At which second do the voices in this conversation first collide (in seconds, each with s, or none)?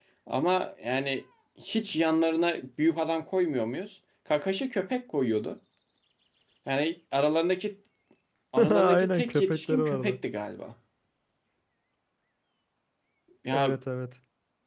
8.7 s